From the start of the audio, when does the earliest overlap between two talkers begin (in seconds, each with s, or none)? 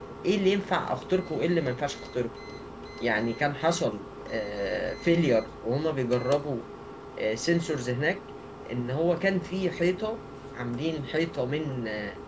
none